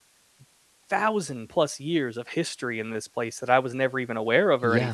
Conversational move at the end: listening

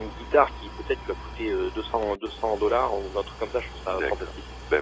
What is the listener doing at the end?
taking over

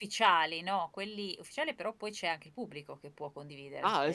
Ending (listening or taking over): taking over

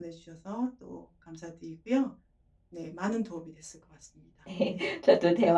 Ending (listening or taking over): taking over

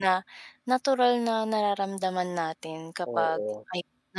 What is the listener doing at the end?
listening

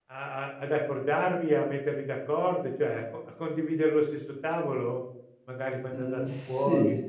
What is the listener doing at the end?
taking over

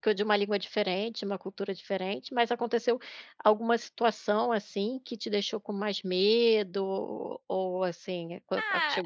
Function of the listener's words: taking over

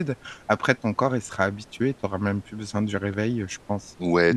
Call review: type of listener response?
taking over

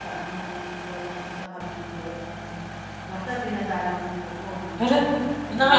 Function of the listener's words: taking over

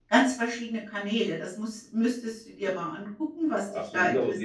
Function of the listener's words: taking over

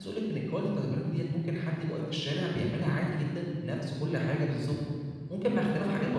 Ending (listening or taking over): taking over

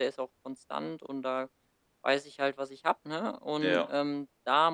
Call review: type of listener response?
listening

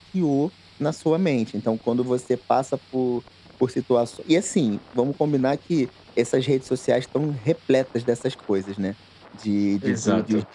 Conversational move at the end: listening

